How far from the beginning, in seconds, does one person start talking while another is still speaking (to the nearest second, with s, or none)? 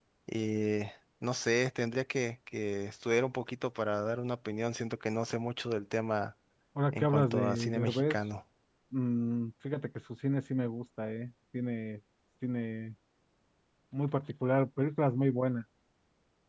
7 s